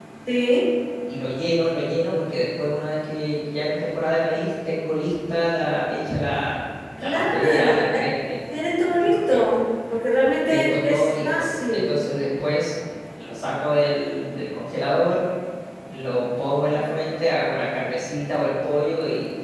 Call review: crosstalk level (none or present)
present